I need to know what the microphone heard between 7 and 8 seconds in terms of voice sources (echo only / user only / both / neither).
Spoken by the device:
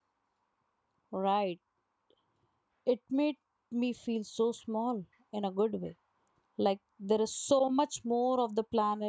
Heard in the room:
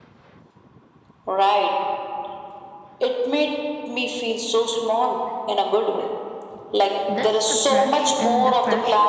both